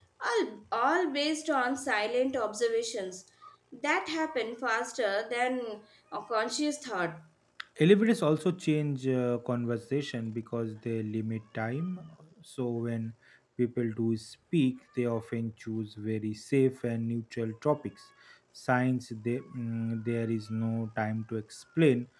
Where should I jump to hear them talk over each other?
none

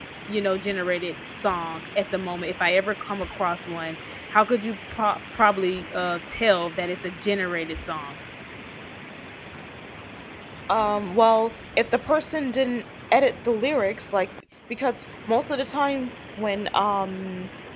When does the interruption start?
none

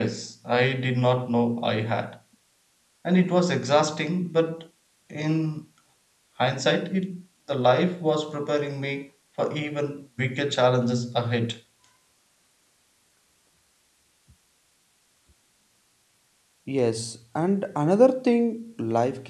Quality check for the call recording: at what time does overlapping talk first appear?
none

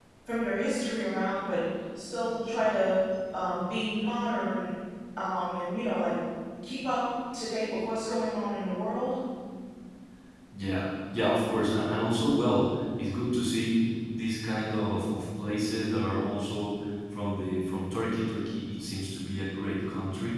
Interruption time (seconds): none

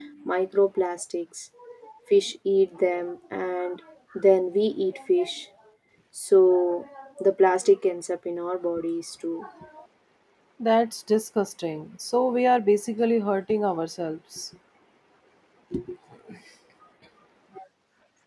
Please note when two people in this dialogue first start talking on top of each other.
none

